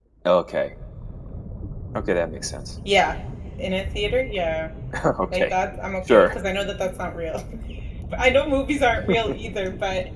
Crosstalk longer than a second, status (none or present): none